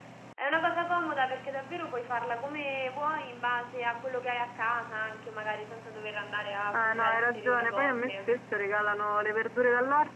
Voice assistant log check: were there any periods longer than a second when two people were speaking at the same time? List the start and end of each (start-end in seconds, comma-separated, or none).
6.7-8.3